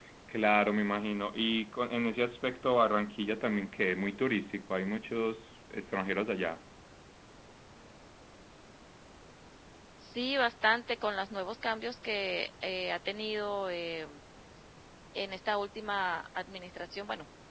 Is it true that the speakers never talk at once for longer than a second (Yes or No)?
Yes